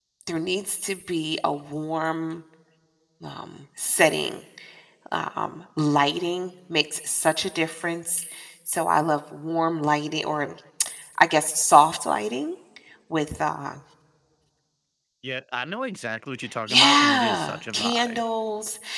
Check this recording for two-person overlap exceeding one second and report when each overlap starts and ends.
16.7-18.2

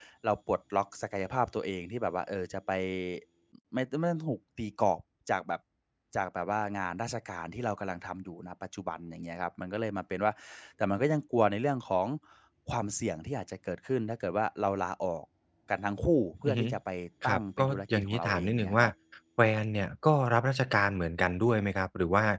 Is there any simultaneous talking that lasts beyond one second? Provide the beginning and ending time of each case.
17.3-18.9

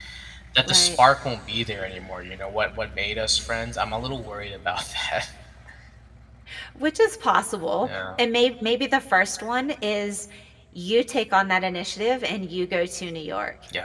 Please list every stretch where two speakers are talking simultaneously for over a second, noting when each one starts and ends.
none

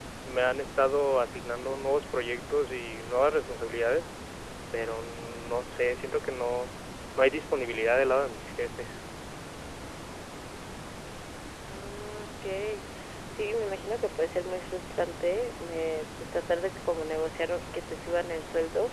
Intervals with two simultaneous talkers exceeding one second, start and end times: none

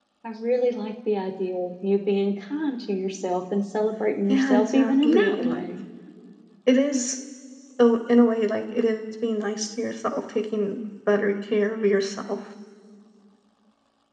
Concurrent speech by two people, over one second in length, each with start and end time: 4.3-5.6

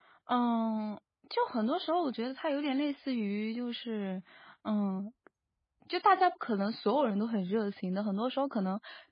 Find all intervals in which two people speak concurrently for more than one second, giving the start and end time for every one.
none

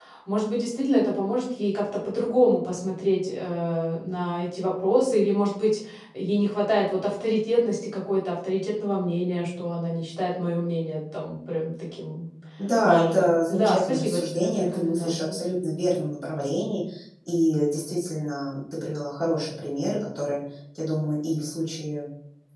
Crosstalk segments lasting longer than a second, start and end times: 12.8-15.4

